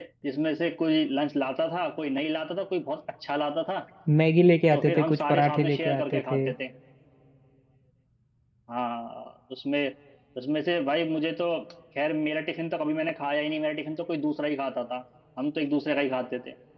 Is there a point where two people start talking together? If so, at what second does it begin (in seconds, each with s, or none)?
4.7 s